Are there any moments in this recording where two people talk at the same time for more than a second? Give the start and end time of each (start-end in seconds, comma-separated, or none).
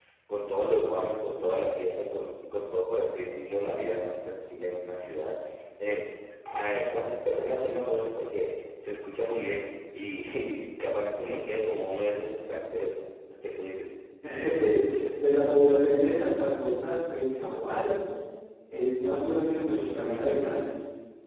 none